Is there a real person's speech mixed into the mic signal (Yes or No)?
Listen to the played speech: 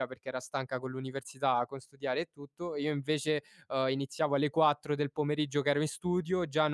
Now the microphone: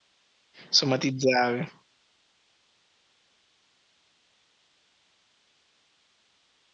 Yes